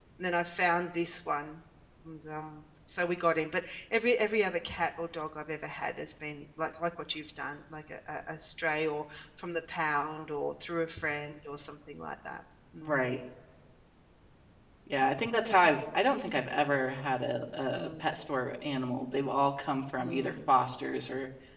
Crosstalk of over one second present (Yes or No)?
No